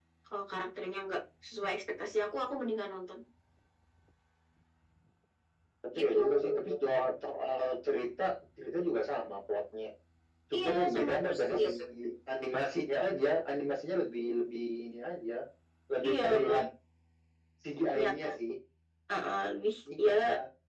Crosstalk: present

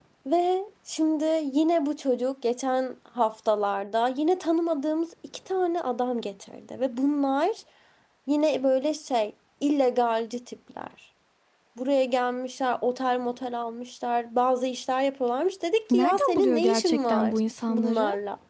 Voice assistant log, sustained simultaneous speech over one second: present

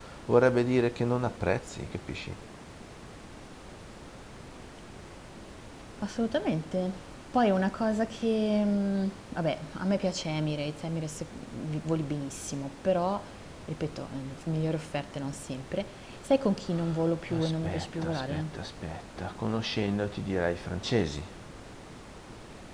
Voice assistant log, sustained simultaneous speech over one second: present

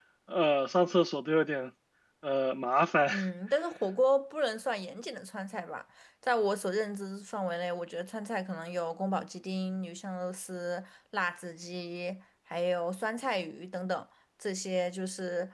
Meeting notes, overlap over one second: none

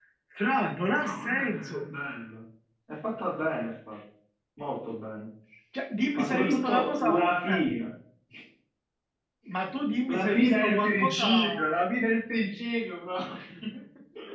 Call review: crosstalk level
present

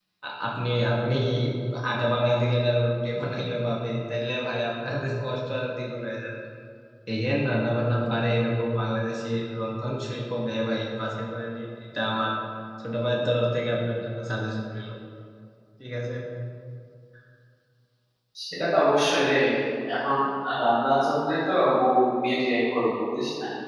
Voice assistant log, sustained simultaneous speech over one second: none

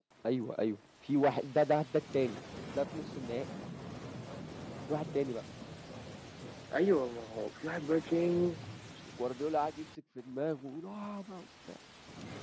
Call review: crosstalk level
none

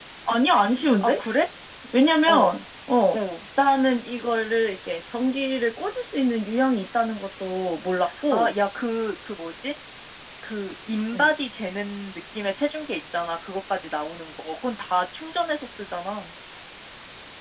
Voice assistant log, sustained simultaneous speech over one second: none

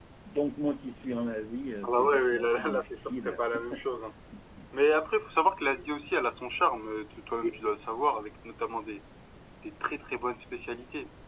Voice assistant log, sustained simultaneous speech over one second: present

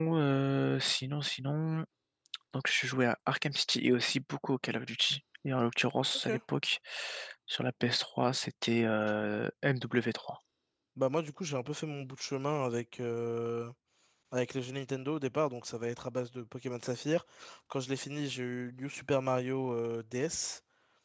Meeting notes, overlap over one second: none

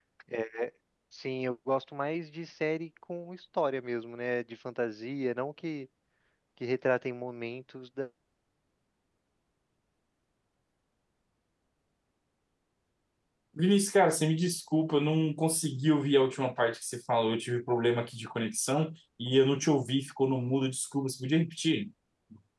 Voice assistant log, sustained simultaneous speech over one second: none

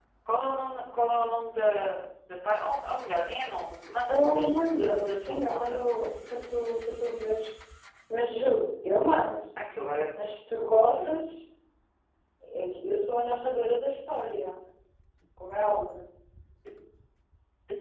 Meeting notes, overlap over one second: present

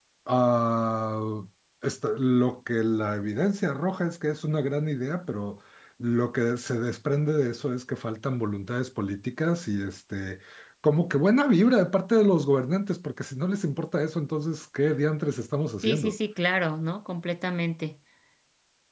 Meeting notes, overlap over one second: none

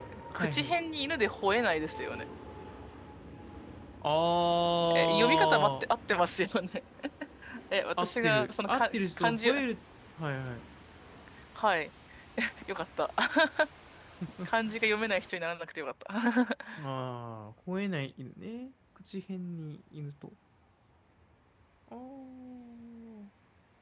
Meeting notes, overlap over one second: present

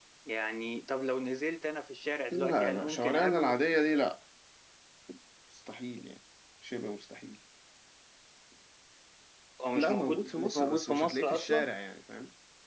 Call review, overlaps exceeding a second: present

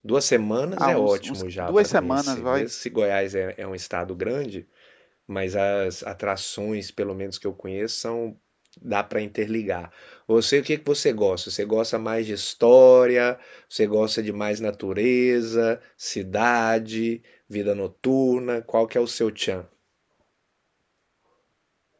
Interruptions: present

